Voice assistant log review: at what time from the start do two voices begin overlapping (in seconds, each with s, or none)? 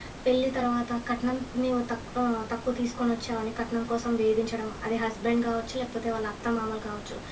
none